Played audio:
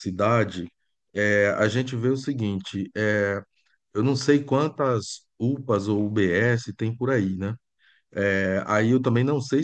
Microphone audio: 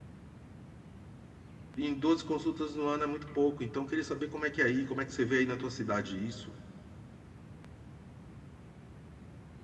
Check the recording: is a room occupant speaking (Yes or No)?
Yes